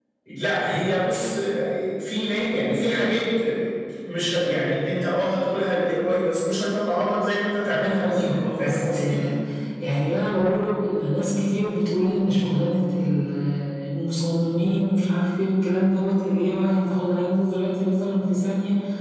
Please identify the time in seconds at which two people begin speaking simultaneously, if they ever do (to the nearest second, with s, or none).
8 s